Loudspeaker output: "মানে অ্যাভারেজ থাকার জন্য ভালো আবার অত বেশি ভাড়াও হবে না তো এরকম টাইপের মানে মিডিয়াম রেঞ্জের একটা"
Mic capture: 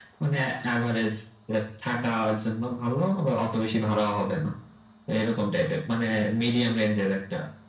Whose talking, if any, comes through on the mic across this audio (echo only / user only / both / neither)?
echo only